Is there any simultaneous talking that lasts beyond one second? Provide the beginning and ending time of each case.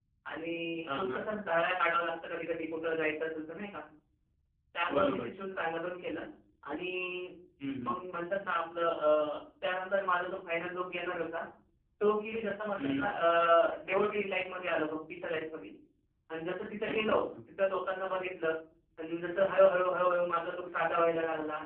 none

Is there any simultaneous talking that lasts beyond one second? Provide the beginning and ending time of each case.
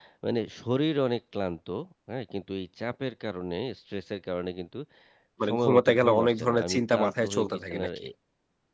5.5-8.0

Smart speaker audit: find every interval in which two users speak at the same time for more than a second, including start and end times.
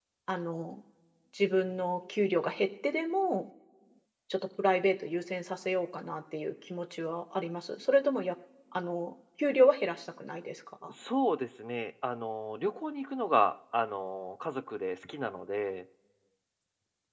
none

